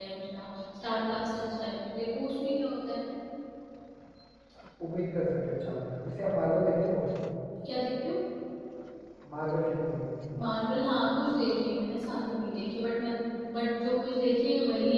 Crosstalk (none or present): none